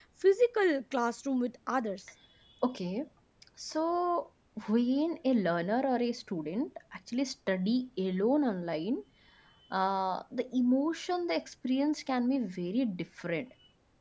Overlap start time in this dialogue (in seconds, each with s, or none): none